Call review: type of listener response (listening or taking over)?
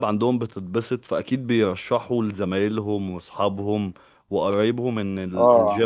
listening